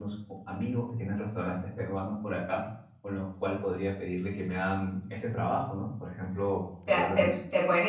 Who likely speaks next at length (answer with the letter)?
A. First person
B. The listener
B